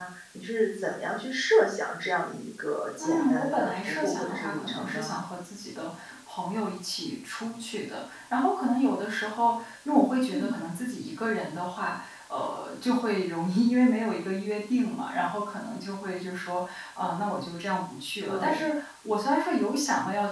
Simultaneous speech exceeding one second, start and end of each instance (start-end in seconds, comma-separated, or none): 3.0-5.2